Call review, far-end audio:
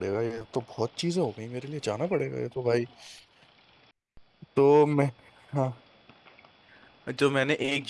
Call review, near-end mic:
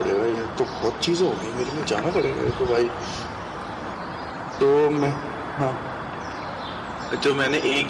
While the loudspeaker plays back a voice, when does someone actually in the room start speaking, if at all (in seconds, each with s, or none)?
none